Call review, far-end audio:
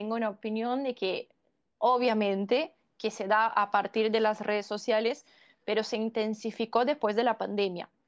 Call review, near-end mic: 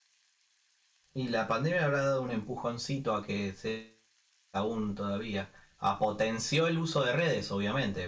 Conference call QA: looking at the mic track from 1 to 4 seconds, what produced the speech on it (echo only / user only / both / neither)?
user only